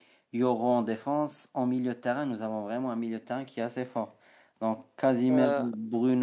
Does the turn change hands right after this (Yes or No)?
No